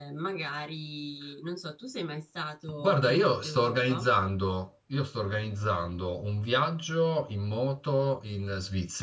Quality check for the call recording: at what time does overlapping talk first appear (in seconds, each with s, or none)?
2.8 s